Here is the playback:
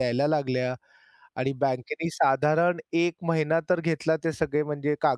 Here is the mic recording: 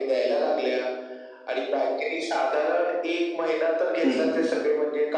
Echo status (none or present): present